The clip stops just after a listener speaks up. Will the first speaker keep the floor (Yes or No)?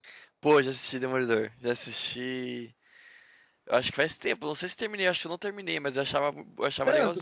No